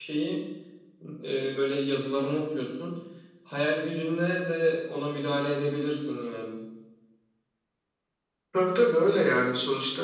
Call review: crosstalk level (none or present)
none